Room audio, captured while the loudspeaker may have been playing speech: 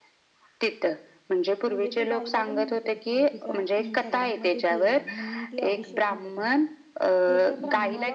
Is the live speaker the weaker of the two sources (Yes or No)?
Yes